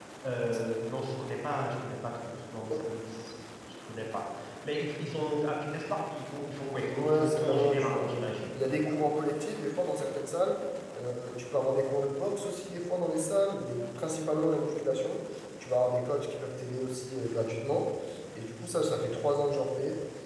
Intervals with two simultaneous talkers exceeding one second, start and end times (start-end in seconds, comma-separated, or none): 6.9-8.3